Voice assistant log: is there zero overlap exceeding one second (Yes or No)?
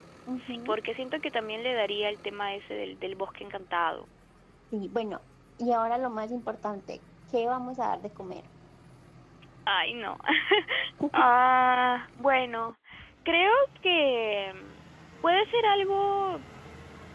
Yes